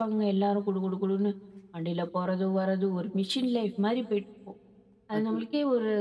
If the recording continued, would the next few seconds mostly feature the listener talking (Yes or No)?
No